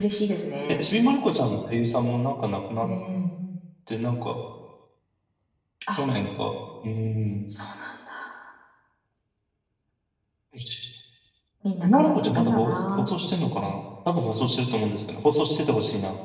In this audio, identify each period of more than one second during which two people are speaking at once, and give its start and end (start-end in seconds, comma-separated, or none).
11.8-13.1